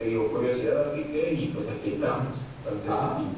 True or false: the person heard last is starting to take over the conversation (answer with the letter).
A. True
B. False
A